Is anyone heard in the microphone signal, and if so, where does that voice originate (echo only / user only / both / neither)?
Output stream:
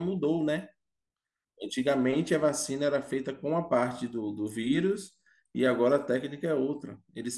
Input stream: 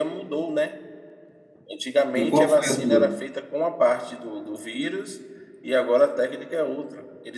both